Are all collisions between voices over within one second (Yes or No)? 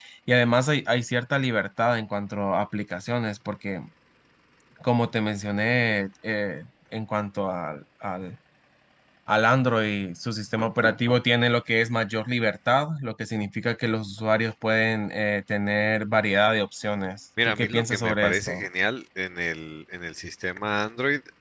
No